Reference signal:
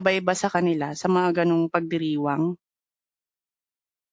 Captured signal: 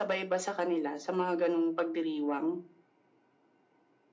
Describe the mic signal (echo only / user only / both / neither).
echo only